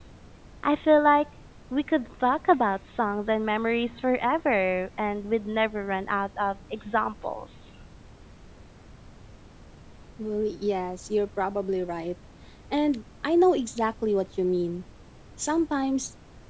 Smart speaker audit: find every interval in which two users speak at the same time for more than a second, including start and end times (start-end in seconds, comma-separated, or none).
none